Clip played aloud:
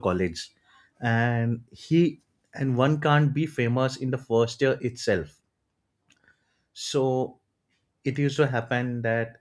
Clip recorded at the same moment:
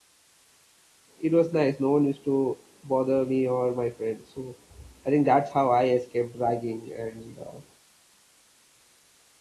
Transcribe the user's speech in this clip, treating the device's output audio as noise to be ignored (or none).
it was nice. No one used to bother me or my friends. So I think that's how I escaped ragging. And uh,